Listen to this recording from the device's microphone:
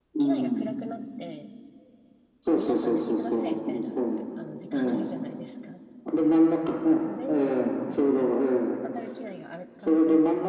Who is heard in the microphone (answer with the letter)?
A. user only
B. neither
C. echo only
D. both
D